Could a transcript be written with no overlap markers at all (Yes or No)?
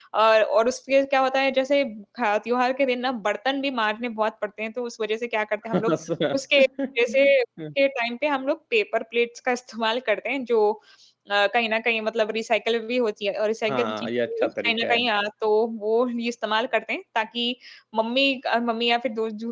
No